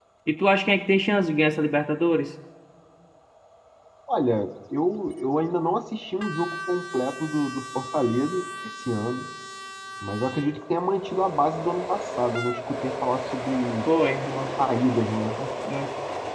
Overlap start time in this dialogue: none

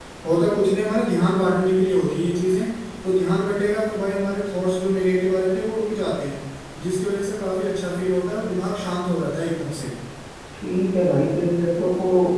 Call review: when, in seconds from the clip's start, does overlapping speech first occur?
none

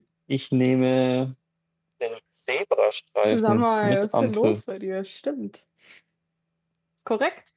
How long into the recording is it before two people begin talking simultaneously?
3.3 s

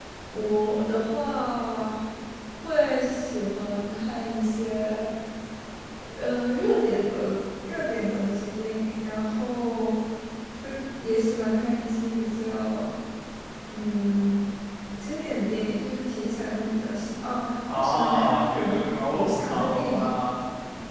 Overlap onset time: 17.7 s

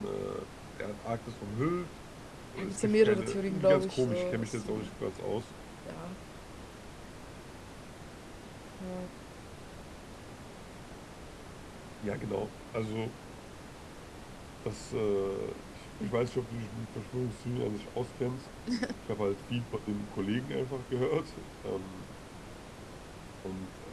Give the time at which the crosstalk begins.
2.6 s

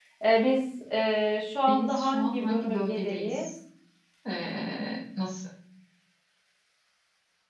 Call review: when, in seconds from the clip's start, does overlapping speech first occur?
1.7 s

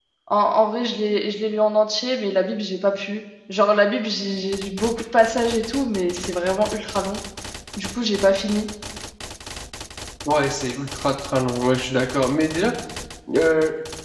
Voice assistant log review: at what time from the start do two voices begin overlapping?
none

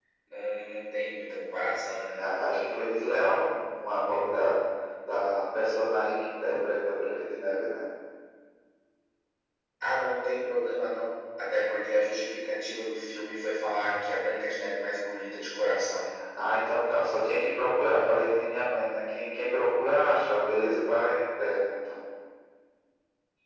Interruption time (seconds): none

